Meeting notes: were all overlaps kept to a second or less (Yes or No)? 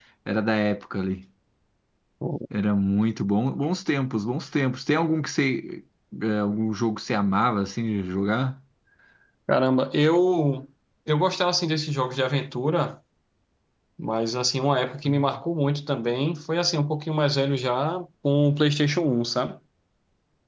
Yes